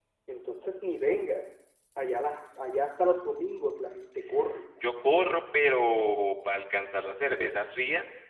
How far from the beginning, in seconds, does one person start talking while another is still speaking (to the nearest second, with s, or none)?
none